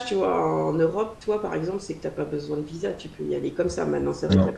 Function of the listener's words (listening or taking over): listening